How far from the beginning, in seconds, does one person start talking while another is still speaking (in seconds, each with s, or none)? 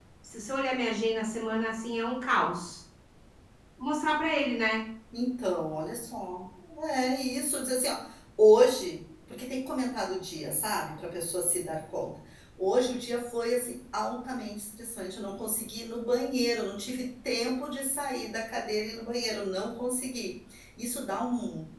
none